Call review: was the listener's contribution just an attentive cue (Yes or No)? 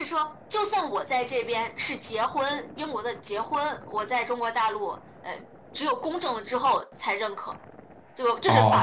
No